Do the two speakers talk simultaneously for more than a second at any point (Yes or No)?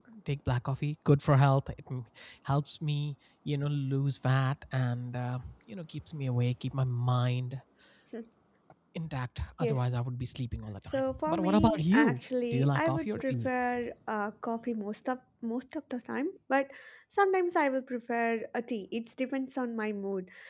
Yes